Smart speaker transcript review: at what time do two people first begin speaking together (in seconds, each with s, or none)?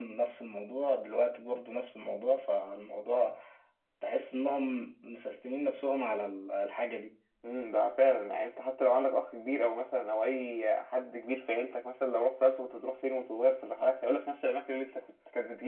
none